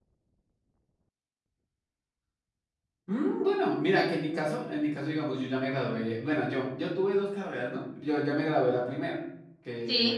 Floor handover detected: No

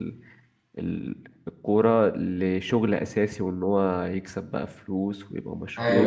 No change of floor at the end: No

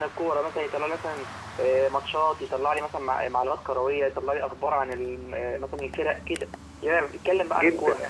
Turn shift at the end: Yes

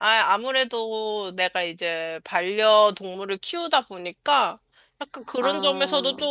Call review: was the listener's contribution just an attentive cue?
Yes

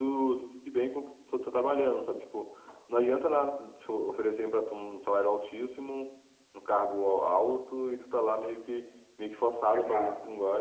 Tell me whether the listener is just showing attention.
No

